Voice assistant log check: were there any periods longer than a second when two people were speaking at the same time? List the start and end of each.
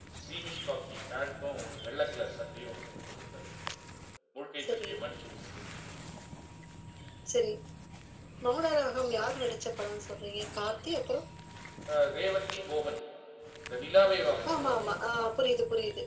none

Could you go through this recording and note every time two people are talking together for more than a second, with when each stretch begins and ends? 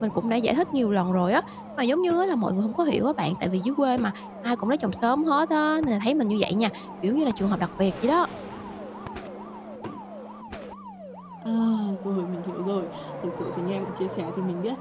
none

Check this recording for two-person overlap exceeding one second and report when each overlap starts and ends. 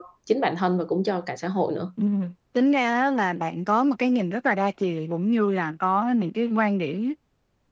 none

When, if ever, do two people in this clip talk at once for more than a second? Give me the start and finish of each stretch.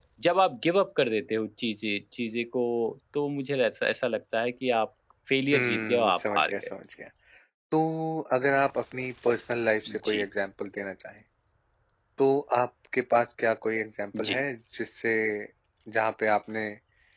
5.5-6.7

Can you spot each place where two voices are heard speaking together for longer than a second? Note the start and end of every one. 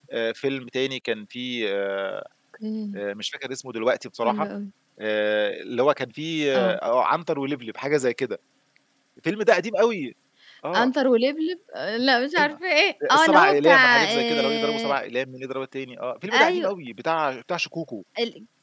13.1-14.9

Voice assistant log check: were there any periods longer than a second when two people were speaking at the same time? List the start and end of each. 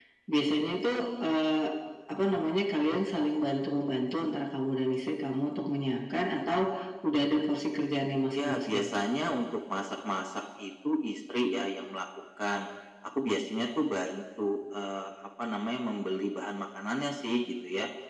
none

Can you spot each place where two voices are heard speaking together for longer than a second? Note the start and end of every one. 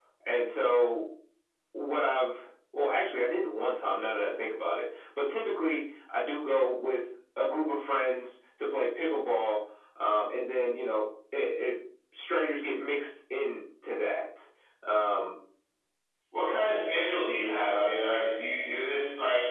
none

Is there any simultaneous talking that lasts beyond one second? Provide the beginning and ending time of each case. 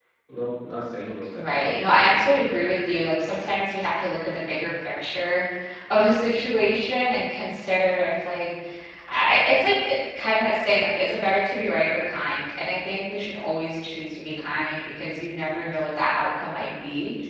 1.3-2.7

